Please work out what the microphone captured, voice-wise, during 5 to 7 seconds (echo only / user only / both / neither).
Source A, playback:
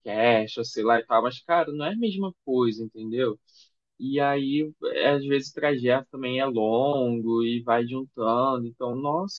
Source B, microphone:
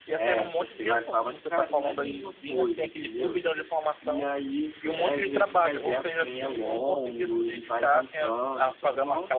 both